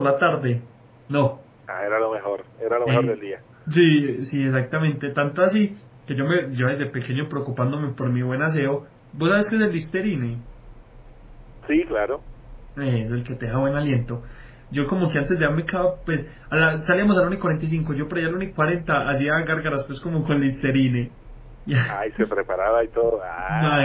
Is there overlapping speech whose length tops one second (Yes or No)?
No